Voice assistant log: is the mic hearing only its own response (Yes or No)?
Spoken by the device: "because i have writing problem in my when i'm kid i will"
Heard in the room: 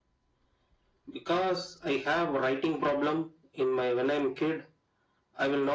Yes